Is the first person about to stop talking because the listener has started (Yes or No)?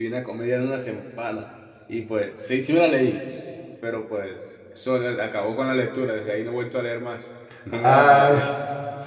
Yes